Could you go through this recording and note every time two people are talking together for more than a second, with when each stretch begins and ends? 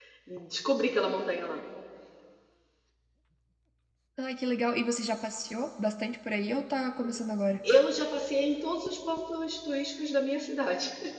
none

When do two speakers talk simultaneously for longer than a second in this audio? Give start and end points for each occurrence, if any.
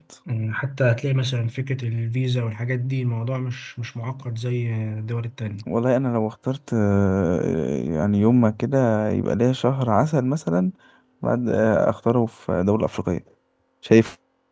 none

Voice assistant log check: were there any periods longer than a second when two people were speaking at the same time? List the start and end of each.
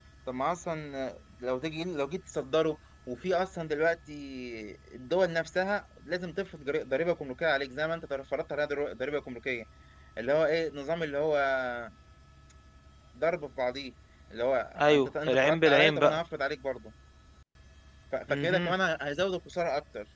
14.8-16.2

